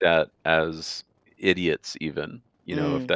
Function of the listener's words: listening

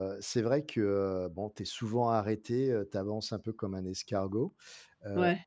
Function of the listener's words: listening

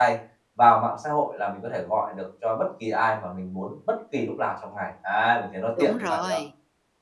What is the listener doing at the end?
taking over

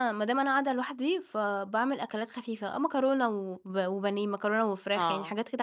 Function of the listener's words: listening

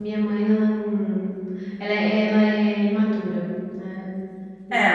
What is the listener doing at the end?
taking over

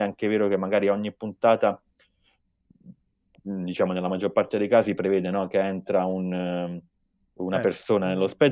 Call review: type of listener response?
listening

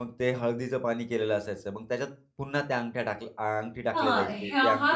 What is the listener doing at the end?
taking over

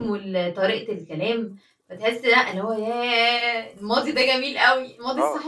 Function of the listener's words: taking over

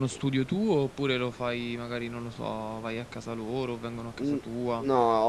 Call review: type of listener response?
taking over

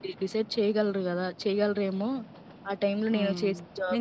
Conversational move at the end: taking over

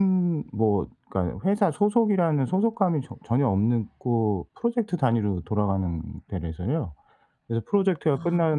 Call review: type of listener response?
listening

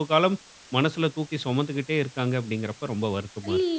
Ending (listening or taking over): taking over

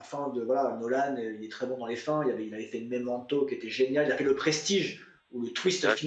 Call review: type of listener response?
listening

